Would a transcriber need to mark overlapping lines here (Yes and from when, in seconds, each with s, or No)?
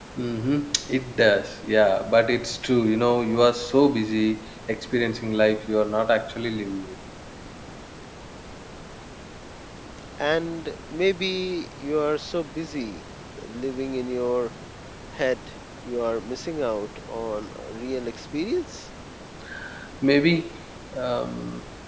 No